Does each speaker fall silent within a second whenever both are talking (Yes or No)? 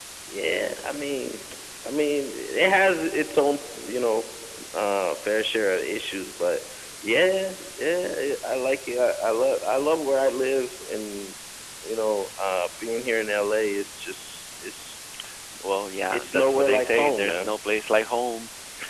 No